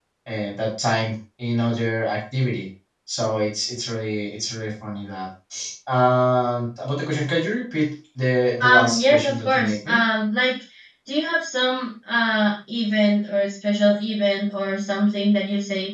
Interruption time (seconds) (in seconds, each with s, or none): 8.6 s